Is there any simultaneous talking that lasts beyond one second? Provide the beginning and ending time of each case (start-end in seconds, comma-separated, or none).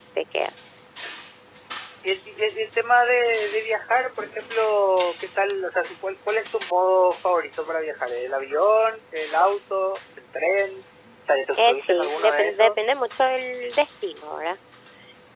11.6-12.8